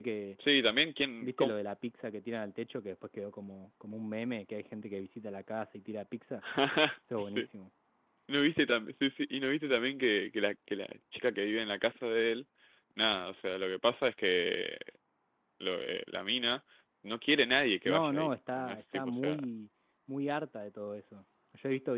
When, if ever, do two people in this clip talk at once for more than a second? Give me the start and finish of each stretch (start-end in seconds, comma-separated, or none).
17.9-19.4